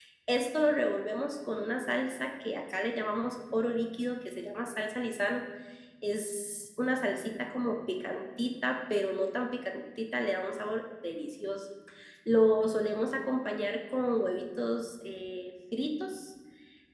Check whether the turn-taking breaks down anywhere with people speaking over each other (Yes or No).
No